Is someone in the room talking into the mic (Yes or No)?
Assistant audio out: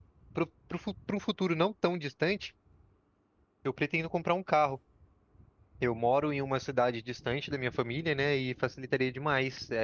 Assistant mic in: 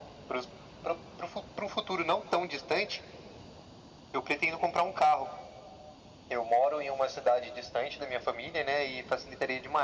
No